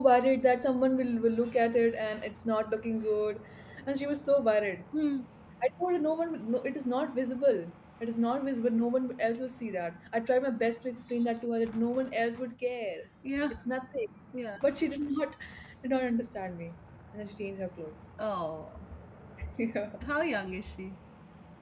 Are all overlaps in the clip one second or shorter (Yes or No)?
Yes